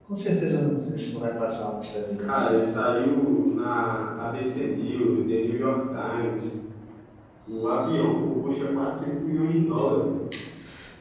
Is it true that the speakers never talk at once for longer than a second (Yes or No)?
Yes